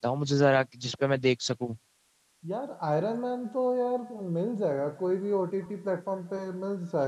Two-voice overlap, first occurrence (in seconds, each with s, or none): none